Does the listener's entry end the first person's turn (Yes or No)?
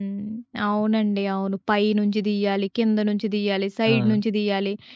No